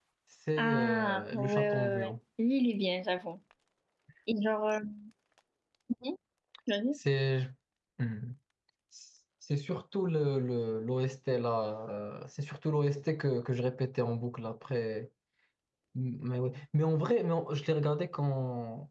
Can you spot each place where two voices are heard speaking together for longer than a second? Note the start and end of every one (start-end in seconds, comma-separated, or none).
0.6-2.1